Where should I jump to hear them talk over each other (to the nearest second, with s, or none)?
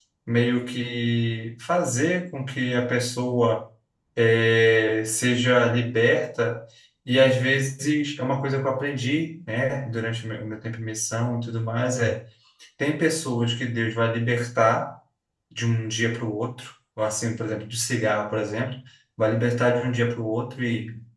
none